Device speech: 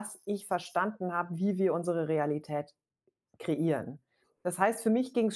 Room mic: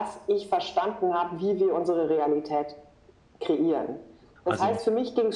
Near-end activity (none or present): present